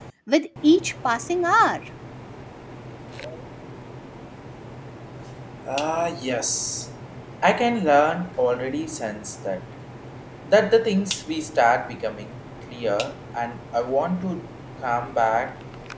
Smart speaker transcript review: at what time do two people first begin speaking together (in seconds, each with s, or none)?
none